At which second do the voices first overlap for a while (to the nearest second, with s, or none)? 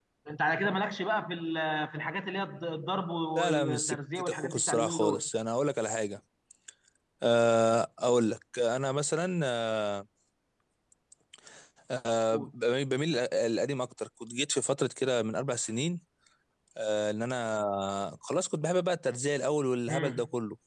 3 s